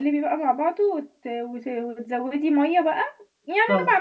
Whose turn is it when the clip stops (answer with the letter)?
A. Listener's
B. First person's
B